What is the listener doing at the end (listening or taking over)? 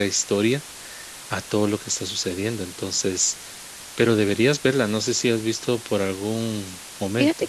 taking over